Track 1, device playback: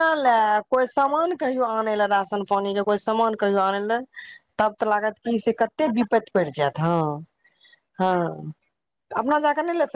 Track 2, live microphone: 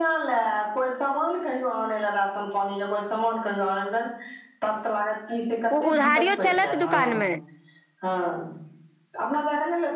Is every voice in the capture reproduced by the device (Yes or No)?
No